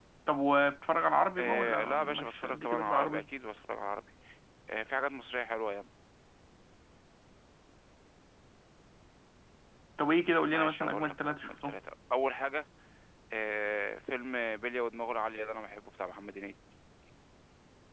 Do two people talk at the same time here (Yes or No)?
Yes